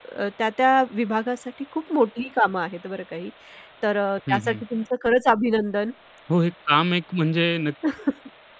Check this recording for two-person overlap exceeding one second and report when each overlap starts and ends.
none

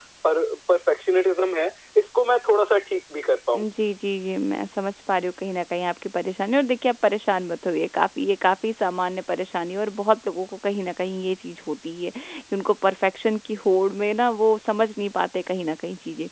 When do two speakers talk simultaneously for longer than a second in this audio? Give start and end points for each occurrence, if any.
none

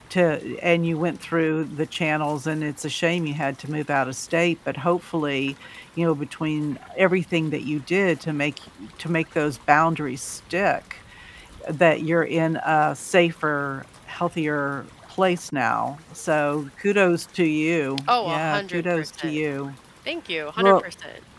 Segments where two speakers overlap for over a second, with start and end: 18.1-19.4

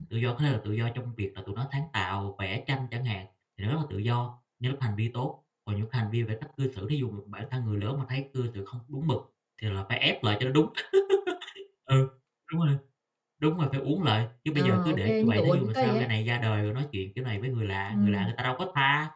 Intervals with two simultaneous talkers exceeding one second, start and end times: 14.5-16.1

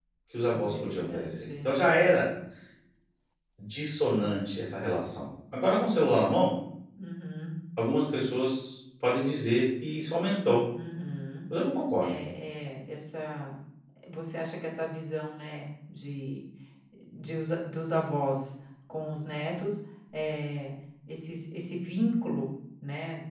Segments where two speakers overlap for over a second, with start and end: 0.5-1.8

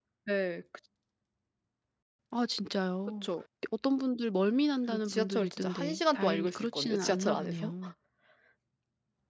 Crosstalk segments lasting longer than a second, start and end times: 4.9-7.7

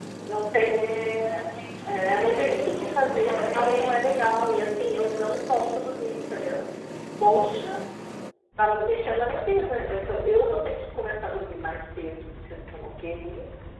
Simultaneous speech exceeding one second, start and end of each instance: 1.9-4.0

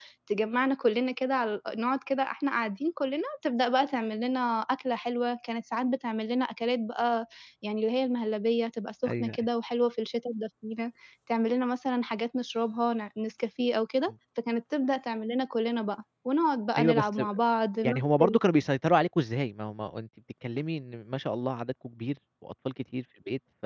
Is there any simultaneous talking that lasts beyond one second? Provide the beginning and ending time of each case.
none

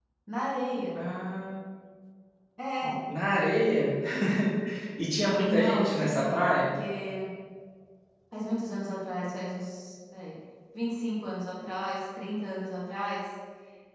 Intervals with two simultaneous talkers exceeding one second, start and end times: 5.4-6.7

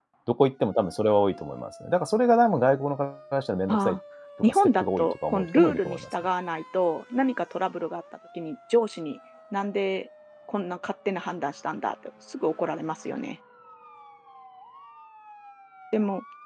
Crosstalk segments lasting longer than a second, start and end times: 4.4-6.0

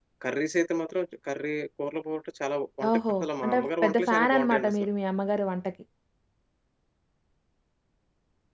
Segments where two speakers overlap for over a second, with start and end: 2.9-4.9

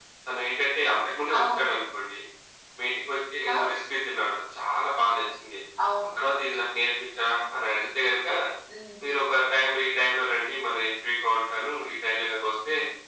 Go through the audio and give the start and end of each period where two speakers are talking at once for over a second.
none

